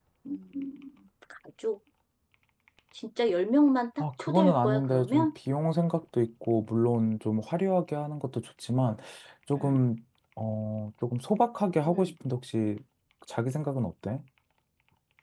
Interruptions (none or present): present